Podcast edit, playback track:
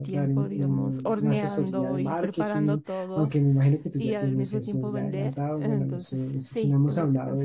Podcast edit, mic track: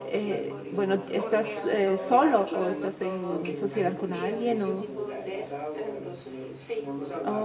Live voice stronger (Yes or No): Yes